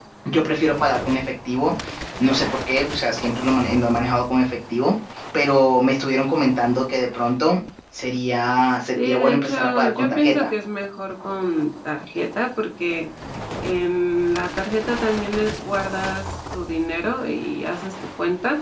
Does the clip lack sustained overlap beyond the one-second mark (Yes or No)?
No